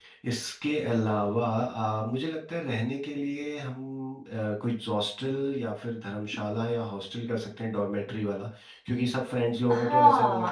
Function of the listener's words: taking over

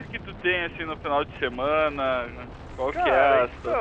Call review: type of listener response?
taking over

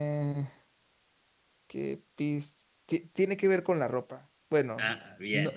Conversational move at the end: listening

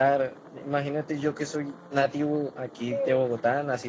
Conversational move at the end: listening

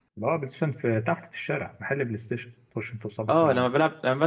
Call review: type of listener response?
taking over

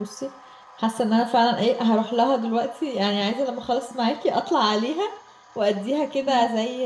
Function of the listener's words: listening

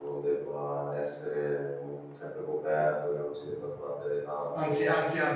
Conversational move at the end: taking over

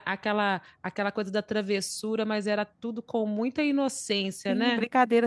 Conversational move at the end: taking over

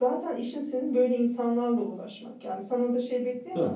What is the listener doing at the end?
listening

